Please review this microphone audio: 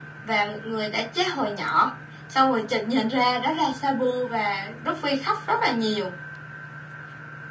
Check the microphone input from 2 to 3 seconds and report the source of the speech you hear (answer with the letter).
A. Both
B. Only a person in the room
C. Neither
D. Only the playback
D